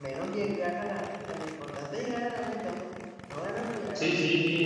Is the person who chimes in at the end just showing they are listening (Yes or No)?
No